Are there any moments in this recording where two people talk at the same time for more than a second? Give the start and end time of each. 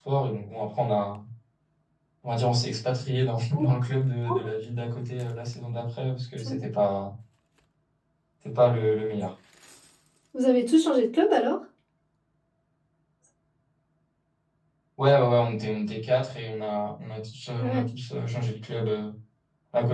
none

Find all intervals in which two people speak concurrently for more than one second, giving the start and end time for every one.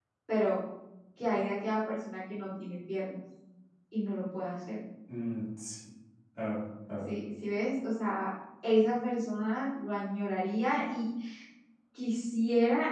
none

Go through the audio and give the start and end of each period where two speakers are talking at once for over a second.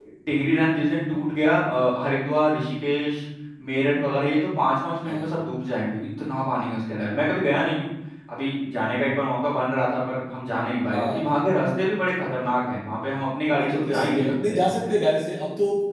13.4-14.7

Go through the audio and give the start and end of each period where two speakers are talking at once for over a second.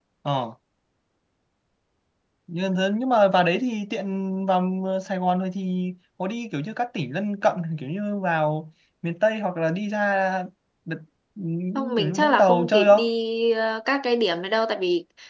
11.8-13.1

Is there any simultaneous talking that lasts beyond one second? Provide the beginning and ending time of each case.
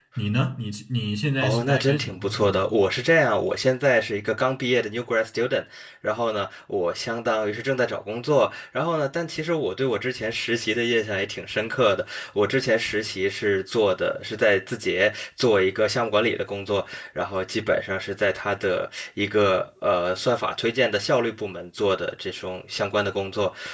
1.4-2.6

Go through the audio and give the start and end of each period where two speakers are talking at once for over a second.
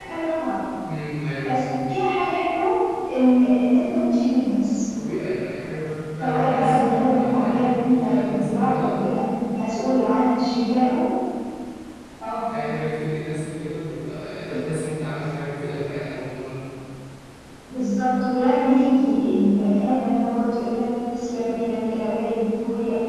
6.2-8.9

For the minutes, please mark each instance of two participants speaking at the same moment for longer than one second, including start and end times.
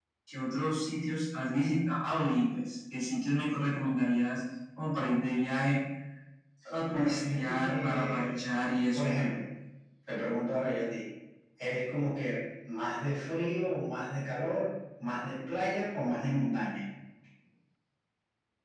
6.9-8.4

